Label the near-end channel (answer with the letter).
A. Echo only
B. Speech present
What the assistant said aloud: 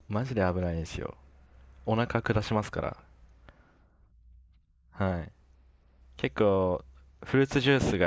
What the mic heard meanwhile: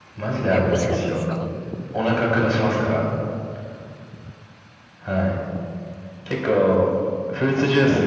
B